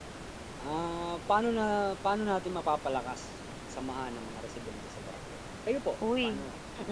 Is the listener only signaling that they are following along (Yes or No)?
No